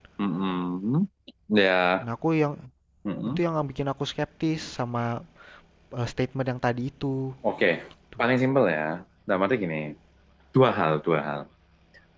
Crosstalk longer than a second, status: none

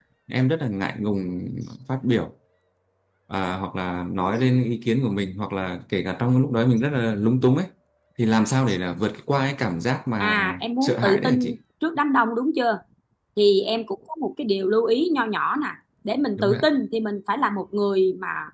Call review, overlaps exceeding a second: present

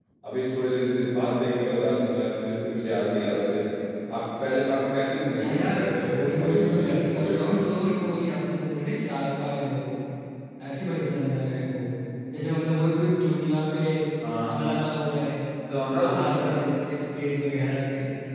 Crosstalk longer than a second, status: present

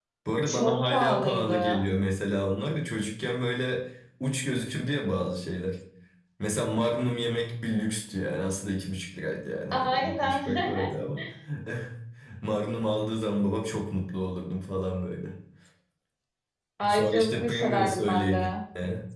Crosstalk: present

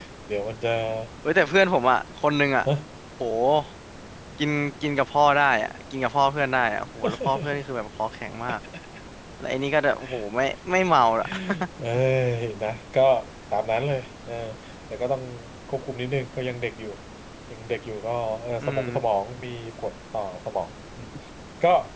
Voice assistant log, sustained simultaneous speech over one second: none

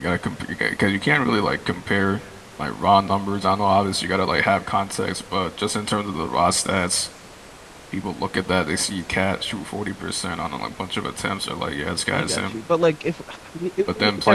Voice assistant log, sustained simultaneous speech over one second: none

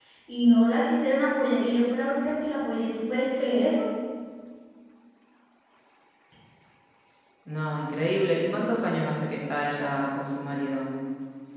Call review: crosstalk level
none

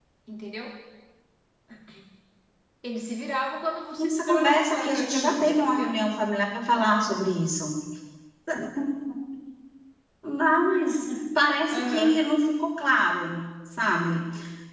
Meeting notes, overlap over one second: present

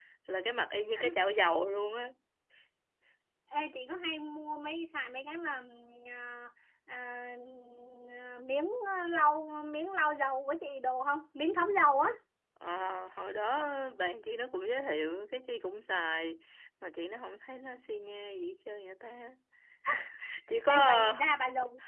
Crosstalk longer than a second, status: none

